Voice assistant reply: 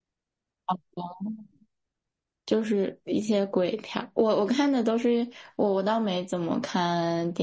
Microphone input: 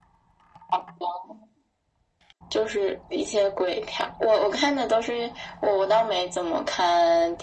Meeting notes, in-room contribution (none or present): none